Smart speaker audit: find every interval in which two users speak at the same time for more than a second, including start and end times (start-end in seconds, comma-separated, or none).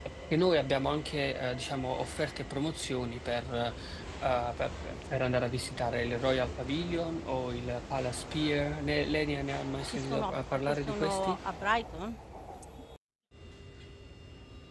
9.9-11.4